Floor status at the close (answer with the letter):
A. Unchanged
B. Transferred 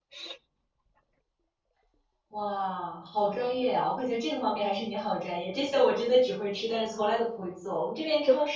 A